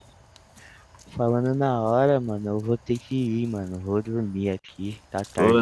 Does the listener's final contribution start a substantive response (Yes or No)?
Yes